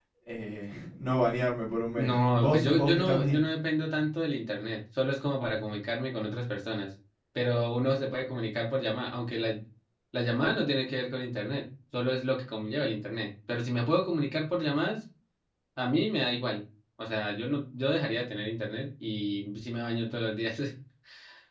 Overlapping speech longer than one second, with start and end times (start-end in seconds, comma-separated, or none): 2.0-3.4